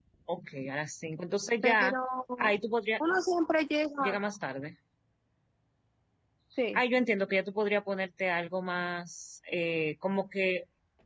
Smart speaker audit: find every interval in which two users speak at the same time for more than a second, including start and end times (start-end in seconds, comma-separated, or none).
none